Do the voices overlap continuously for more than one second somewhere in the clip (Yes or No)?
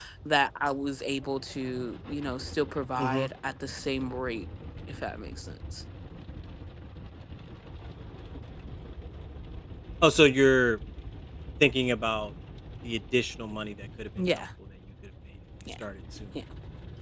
No